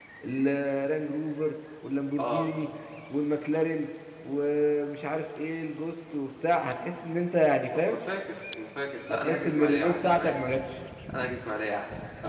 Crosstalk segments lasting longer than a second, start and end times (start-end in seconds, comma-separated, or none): 9.1-10.4